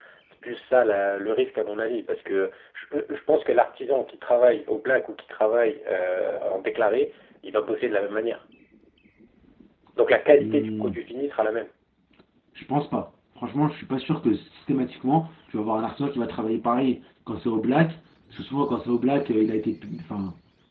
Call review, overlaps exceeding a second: none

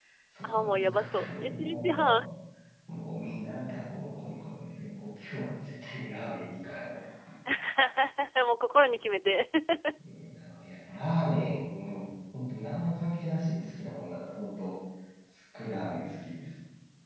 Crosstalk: present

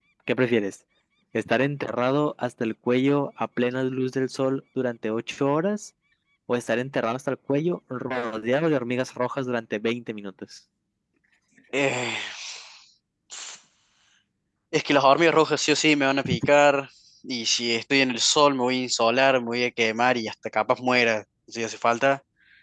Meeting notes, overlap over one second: none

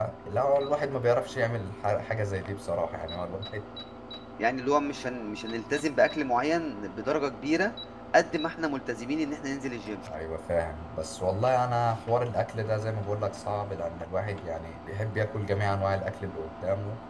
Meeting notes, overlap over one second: none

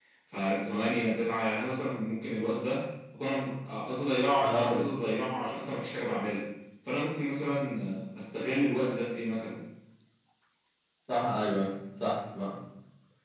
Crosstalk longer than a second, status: none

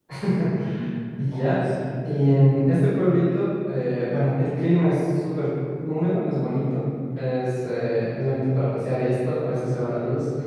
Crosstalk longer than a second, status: none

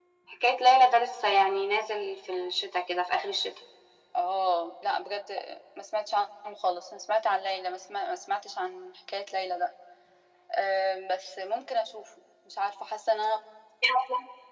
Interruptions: none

